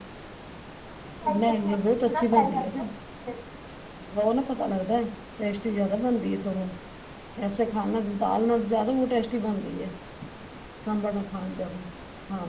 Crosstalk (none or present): present